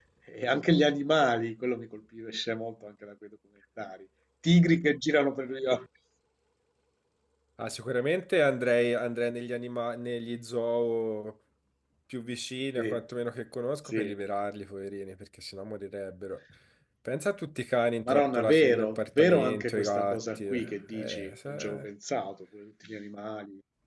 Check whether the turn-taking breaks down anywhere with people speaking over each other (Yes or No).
Yes